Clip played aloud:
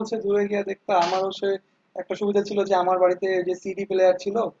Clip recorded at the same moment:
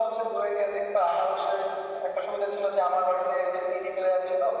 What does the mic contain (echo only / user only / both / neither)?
echo only